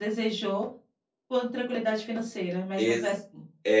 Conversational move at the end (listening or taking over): taking over